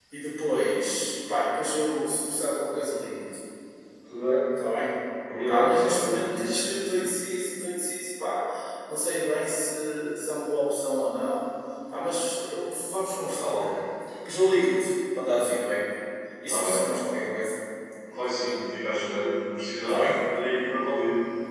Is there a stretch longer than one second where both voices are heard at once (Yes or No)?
Yes